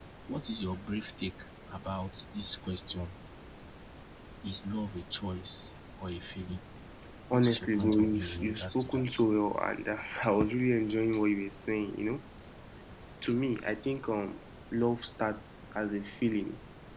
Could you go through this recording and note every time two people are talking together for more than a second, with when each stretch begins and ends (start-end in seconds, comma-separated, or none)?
7.3-9.2